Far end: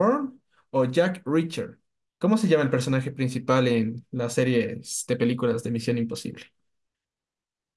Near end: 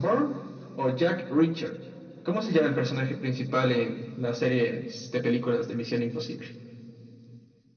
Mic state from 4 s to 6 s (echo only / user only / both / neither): echo only